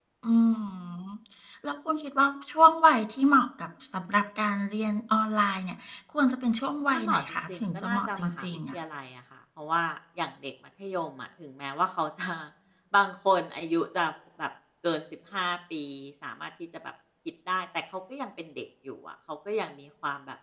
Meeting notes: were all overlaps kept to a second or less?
No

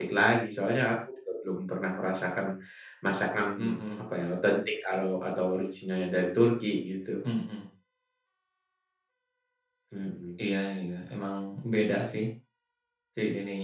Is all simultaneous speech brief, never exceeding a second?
Yes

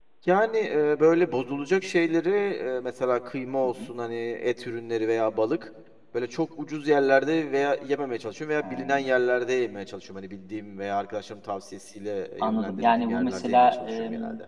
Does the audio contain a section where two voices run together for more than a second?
Yes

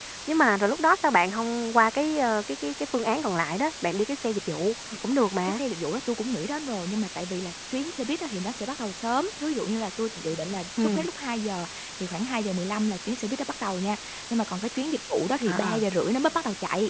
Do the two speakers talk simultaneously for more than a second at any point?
No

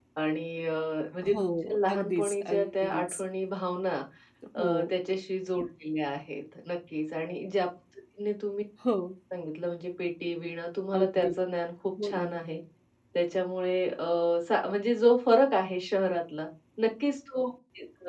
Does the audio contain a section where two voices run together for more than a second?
Yes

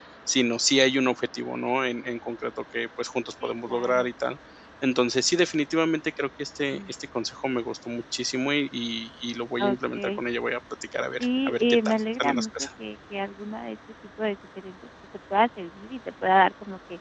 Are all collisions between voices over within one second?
No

